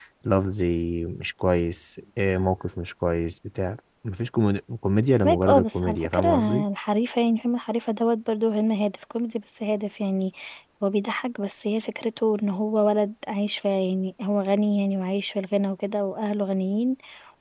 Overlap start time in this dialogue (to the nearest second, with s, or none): 5 s